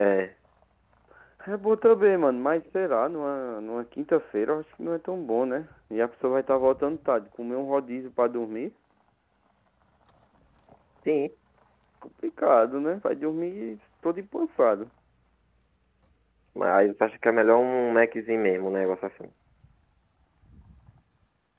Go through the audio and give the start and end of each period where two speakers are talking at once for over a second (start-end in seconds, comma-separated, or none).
none